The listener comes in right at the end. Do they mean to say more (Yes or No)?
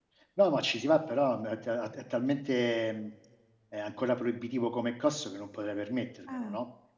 Yes